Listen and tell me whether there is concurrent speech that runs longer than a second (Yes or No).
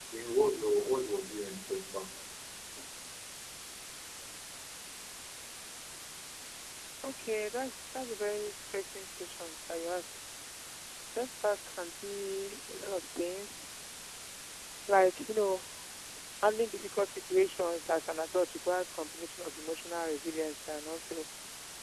No